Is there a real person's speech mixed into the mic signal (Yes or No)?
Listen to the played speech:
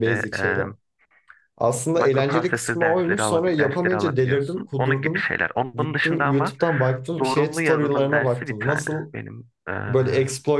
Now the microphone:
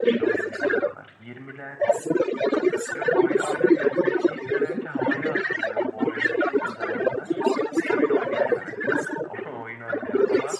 Yes